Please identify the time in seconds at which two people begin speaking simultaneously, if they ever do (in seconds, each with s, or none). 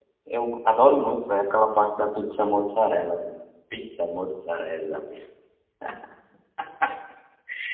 none